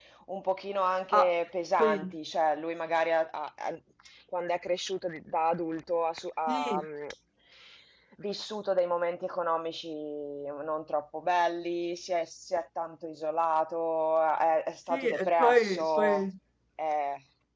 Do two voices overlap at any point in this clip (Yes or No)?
Yes